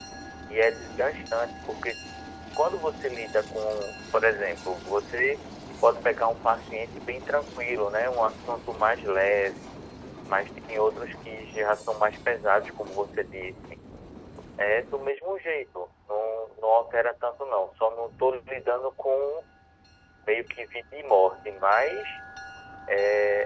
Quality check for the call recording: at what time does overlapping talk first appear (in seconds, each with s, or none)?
none